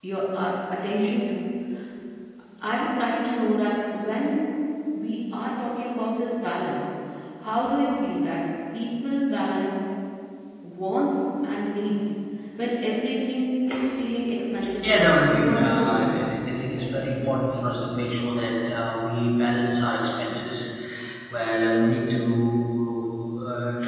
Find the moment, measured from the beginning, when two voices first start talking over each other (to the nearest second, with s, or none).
15 s